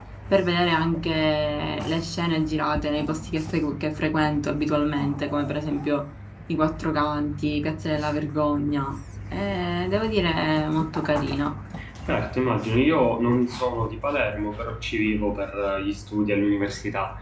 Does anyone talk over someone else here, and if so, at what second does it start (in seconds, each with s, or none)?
none